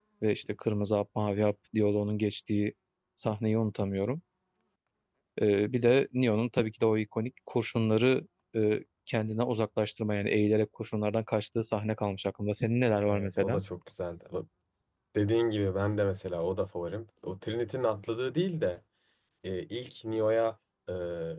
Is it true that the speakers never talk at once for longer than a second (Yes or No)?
Yes